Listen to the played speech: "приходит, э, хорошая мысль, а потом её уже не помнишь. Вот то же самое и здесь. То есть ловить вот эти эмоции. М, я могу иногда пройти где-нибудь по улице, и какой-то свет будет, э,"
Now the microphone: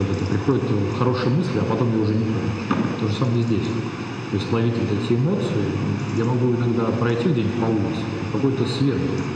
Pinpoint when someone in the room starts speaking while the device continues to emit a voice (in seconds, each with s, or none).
none